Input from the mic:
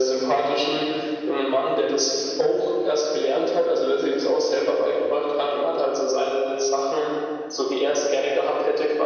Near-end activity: none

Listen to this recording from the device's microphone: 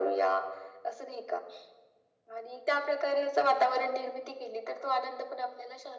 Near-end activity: none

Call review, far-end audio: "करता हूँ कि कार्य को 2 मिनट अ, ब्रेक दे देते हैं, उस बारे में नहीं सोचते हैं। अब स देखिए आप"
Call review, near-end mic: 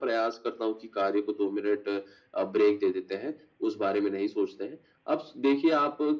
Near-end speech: none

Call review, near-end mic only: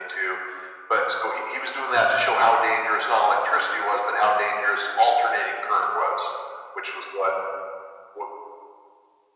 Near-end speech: none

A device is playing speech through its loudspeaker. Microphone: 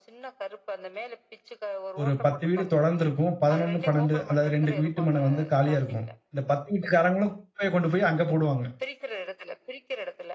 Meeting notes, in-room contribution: present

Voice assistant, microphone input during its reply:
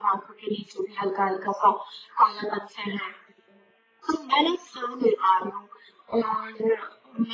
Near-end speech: none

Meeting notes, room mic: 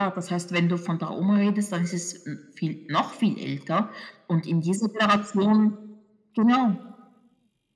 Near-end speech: none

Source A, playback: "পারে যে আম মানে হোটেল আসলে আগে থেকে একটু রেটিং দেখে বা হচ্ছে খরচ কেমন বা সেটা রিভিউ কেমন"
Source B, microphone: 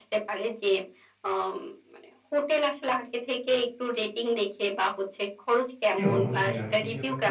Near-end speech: present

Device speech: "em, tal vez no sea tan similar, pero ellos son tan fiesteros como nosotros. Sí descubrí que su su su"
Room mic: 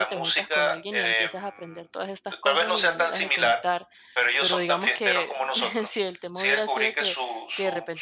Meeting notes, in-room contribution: present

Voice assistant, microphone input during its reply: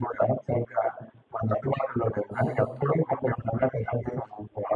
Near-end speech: present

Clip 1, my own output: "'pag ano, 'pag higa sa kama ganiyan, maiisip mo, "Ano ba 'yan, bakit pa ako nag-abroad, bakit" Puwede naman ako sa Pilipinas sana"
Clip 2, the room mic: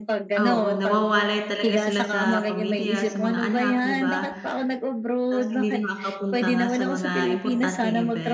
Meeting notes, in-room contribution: present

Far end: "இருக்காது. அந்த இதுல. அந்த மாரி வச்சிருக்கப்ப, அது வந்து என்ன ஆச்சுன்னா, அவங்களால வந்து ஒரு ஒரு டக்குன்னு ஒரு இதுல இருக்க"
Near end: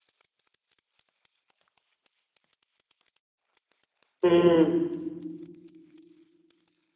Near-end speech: present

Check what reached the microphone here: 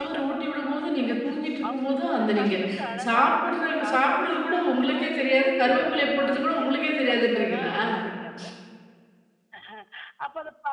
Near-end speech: present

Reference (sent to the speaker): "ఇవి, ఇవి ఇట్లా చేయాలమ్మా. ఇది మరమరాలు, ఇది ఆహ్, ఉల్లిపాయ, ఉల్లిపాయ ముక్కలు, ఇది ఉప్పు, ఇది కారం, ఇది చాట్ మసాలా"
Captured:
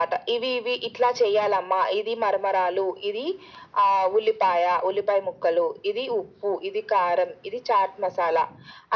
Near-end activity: none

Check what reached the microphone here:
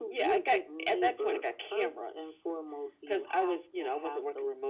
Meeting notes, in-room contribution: none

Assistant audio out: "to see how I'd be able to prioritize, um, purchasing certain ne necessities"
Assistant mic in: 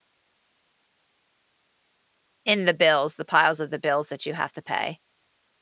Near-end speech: present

